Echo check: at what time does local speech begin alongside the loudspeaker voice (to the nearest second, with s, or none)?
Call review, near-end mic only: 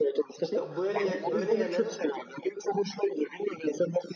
0 s